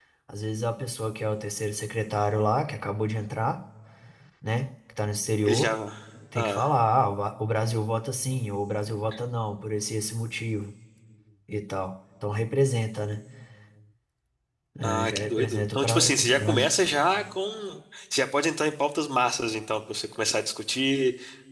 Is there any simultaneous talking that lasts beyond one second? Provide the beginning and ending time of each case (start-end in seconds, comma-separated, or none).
14.8-16.7